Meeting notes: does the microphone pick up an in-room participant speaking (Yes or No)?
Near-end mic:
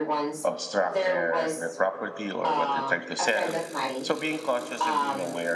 Yes